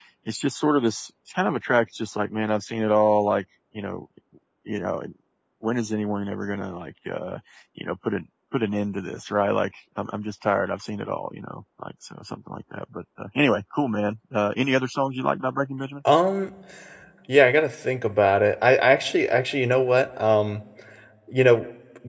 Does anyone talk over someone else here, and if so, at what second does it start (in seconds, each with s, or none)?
none